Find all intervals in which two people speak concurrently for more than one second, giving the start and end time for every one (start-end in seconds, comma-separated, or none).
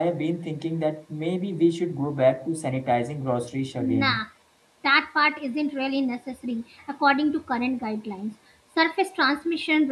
none